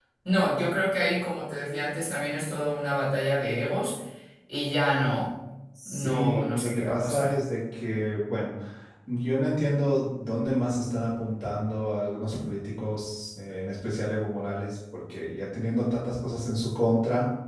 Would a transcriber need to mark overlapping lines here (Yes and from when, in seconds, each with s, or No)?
Yes, from 5.8 s